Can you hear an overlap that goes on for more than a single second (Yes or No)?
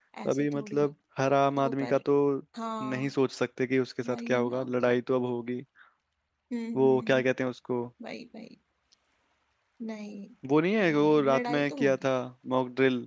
Yes